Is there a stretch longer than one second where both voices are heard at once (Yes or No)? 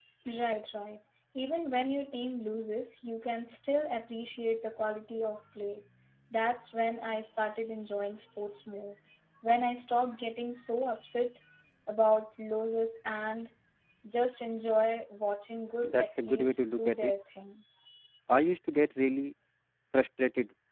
Yes